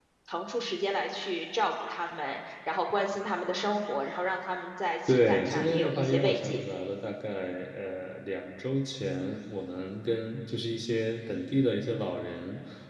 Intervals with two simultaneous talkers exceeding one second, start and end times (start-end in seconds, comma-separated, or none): 5.1-6.6